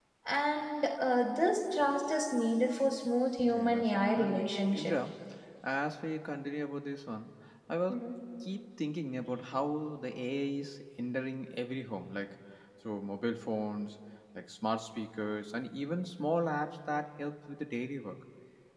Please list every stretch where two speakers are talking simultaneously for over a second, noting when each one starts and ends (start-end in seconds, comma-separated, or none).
3.4-4.9